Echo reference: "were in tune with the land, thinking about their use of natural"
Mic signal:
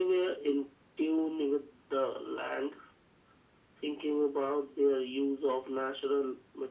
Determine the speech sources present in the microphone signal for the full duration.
echo only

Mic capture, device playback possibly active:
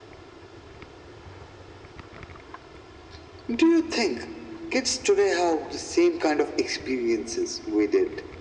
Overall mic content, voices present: echo only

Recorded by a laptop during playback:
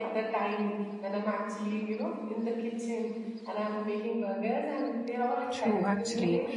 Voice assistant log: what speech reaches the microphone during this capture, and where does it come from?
both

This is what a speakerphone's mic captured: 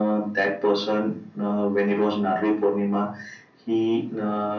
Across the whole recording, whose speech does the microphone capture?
echo only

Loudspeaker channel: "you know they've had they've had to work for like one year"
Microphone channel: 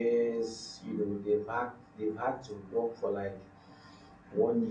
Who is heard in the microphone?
echo only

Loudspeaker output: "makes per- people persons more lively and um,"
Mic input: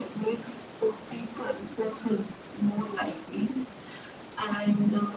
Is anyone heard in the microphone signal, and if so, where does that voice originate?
echo only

